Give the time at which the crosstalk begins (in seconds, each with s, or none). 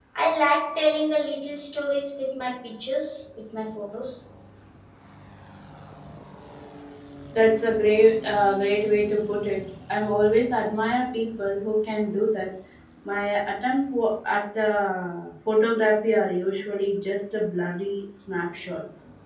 none